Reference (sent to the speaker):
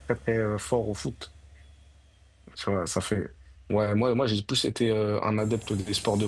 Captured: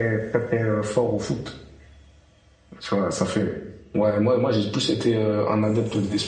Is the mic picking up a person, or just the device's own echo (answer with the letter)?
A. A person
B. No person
B